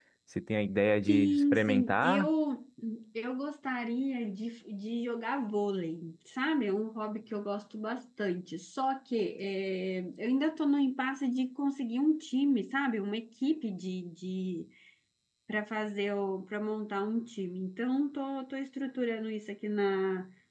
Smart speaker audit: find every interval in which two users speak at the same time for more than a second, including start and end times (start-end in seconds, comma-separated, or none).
1.1-2.3